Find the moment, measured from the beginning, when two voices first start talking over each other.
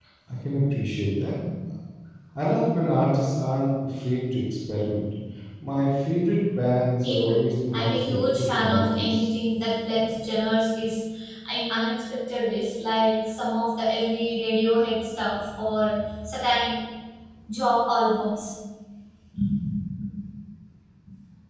7.0 s

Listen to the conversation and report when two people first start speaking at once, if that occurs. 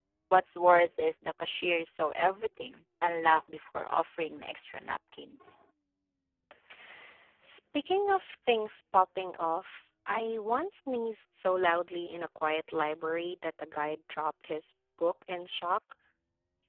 none

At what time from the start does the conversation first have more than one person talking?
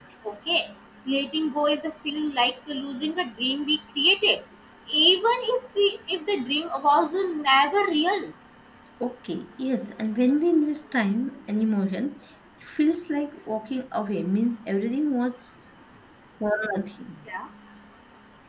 none

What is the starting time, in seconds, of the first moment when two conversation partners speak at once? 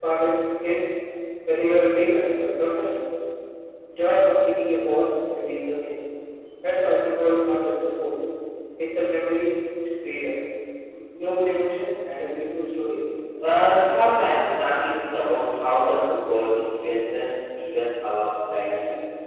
13.5 s

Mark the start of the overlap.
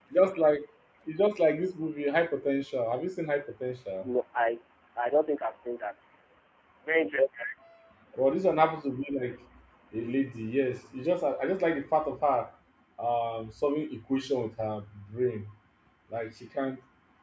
none

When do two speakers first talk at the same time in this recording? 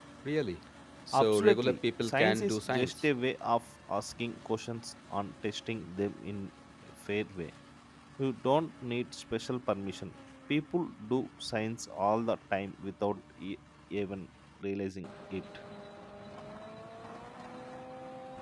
1.1 s

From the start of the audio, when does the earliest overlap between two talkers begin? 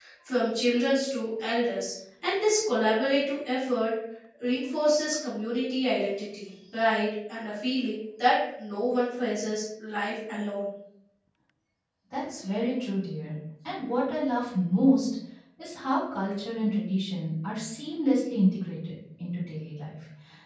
none

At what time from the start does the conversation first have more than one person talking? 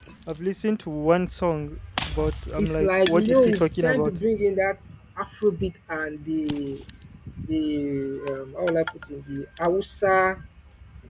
2.5 s

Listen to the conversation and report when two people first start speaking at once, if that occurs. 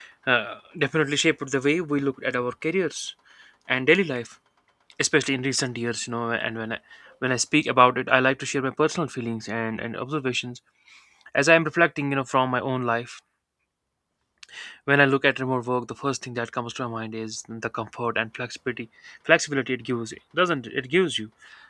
none

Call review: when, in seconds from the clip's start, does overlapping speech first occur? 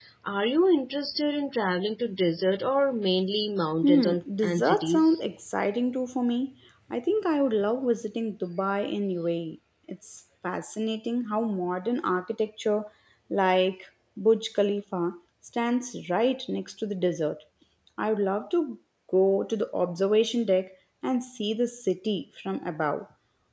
3.8 s

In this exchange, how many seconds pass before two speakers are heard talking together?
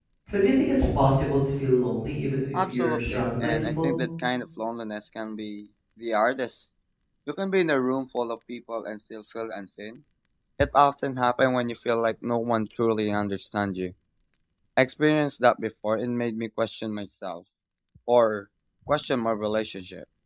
2.5 s

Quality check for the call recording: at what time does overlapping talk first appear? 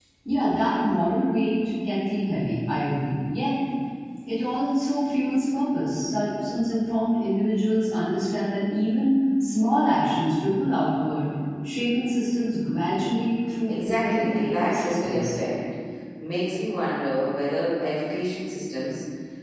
13.7 s

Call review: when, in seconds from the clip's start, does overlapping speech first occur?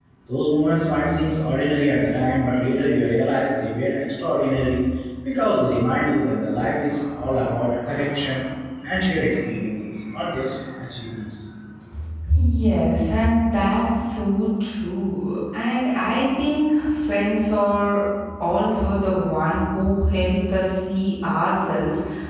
none

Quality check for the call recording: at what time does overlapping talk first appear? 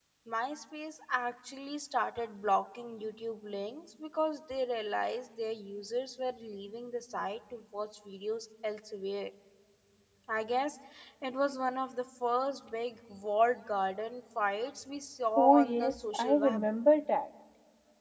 15.4 s

